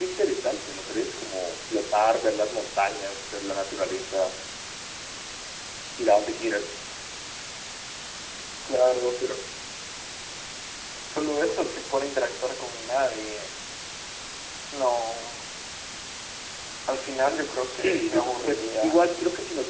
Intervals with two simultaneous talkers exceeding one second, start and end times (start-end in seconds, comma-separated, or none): 17.8-19.0